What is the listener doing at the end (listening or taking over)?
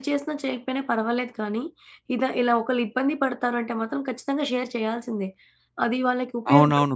taking over